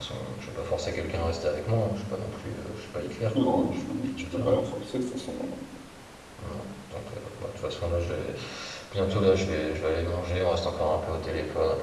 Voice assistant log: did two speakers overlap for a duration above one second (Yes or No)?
Yes